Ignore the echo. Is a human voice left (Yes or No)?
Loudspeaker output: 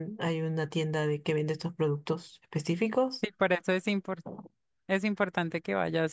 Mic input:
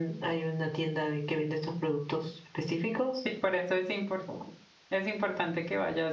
No